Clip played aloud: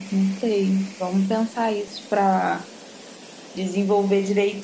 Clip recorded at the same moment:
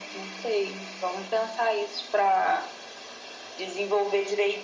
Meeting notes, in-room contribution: none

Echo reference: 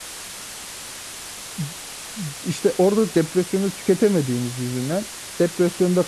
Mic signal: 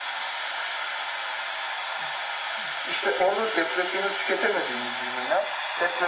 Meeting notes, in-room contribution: none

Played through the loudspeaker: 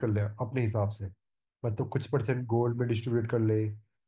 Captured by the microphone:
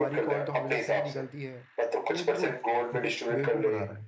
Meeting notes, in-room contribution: present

